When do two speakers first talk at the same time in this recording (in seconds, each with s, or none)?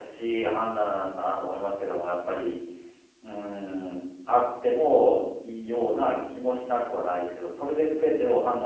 none